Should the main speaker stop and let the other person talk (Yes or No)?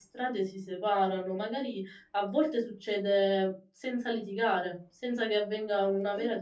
No